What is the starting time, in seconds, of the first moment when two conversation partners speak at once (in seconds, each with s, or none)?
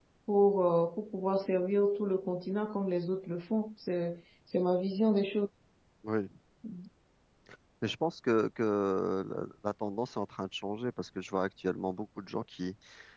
none